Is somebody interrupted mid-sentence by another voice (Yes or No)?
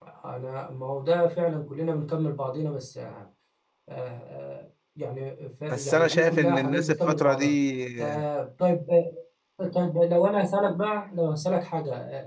Yes